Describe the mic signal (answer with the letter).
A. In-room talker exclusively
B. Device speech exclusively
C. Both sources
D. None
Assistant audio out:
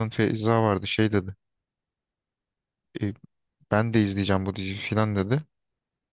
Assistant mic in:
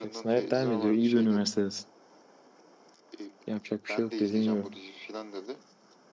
C